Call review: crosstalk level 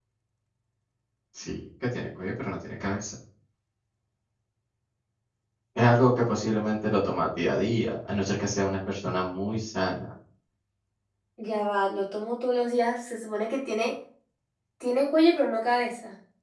none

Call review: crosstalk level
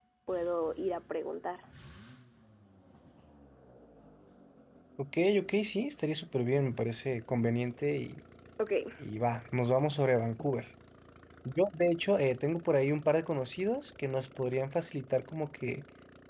none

